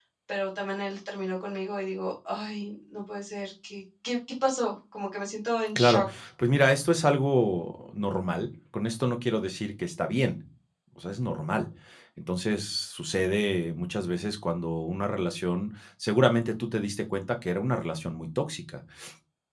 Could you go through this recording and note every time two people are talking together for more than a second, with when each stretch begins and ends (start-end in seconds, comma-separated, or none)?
none